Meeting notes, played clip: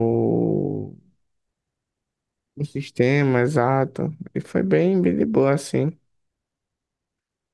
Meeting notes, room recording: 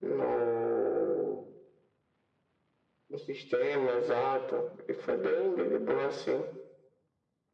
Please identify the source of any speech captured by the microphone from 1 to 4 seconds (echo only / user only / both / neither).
echo only